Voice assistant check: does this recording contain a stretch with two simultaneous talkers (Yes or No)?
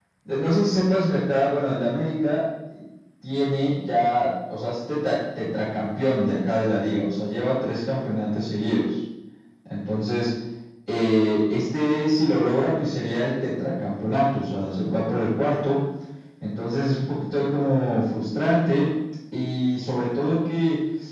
No